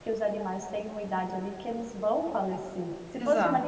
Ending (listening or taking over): listening